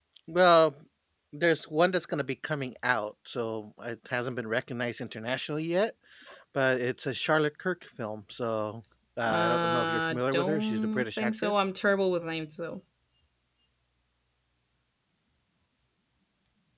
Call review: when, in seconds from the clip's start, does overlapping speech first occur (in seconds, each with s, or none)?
9.2 s